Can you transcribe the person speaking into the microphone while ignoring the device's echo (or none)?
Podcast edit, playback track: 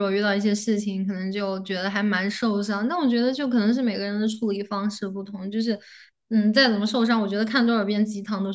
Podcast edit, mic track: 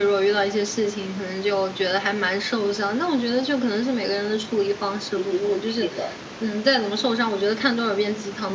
你很努力了。